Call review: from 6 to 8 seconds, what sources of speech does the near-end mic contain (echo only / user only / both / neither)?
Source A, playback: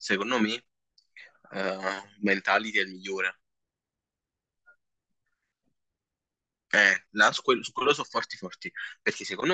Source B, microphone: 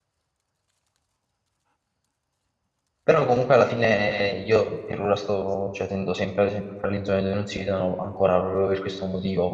user only